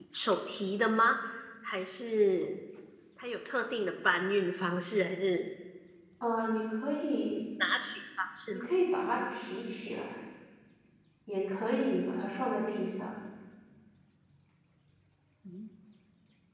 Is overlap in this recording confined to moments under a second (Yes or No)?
Yes